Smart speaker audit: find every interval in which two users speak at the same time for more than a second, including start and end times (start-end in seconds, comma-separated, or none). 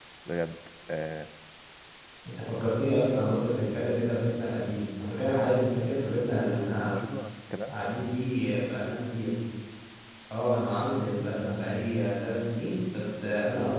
none